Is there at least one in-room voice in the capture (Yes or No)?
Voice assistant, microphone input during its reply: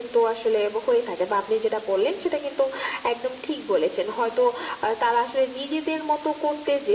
No